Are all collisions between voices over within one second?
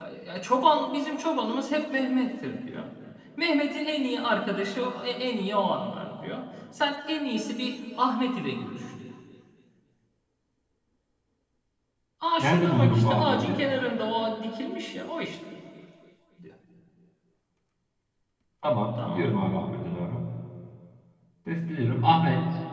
No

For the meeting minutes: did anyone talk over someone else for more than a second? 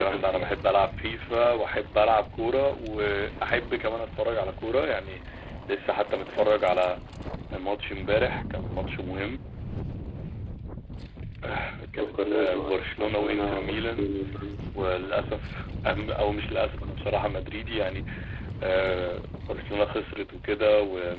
Yes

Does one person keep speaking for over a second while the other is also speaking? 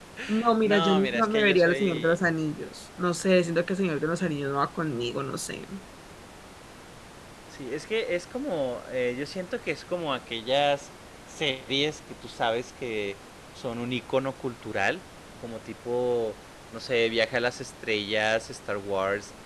Yes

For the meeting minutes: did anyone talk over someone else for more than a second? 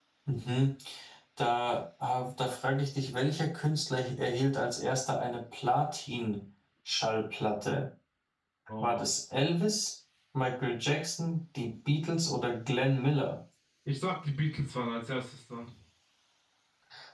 No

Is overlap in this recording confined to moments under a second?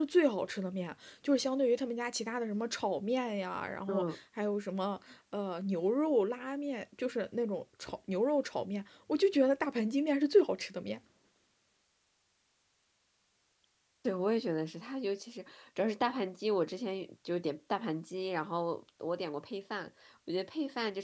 Yes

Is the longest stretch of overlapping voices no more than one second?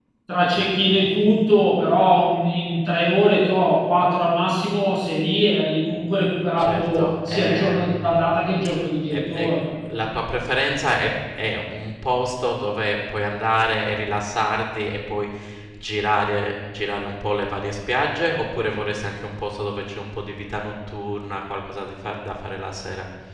No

